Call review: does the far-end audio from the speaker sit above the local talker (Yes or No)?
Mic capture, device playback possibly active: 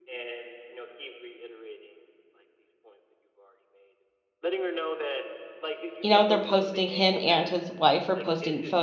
No